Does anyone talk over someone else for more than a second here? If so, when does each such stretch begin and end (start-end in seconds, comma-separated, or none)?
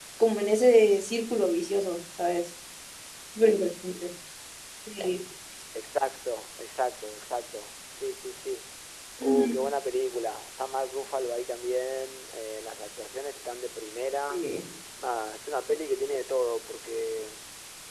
none